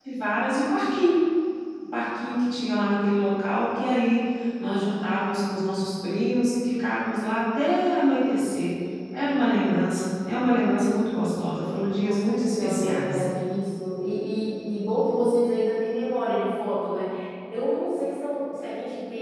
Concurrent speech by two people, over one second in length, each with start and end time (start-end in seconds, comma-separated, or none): 11.9-13.2